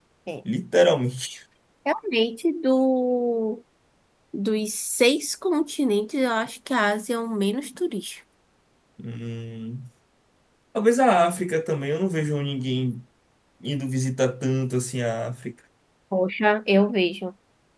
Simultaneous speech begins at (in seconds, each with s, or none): none